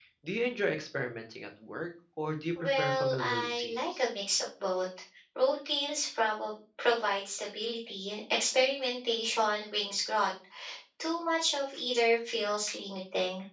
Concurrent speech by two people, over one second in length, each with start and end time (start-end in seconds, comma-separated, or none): 2.6-4.1